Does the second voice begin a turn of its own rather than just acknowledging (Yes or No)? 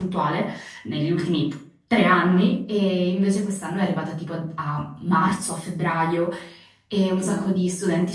No